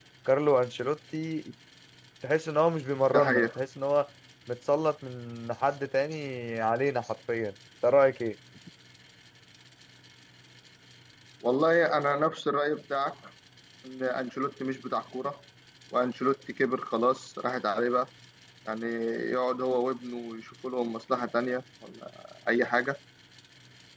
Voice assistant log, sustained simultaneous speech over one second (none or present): none